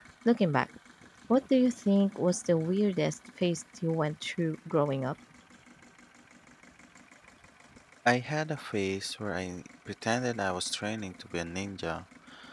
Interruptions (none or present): none